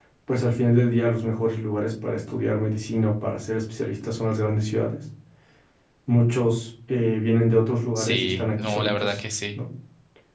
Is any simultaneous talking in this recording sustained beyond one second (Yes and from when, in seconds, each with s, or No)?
Yes, from 8.0 s